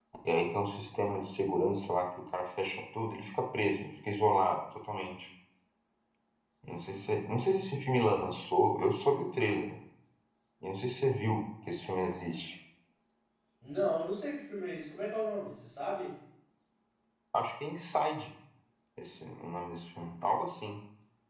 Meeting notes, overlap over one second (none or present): none